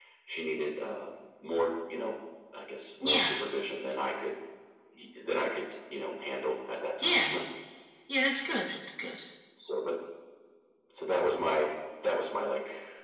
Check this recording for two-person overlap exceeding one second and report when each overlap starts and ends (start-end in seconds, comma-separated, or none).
none